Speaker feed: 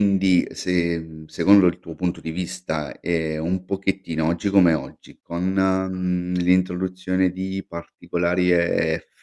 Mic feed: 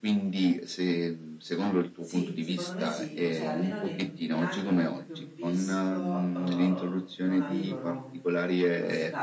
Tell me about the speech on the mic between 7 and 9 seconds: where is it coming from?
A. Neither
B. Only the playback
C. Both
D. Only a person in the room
C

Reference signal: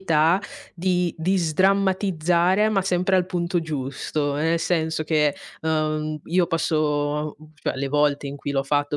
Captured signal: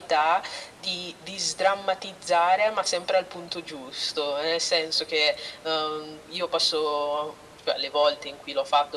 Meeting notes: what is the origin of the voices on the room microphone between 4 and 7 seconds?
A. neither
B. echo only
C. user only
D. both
B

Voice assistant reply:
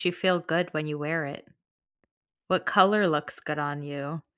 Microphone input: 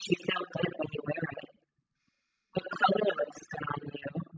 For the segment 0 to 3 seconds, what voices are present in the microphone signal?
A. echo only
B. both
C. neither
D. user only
A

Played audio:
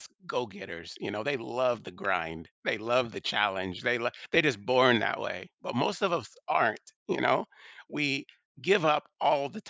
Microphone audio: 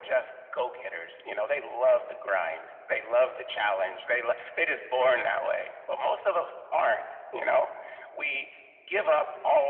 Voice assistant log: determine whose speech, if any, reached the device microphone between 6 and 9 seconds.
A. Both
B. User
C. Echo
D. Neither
C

